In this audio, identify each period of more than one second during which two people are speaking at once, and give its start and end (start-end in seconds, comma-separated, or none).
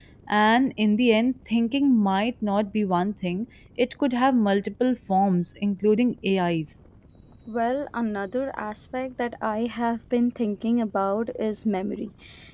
none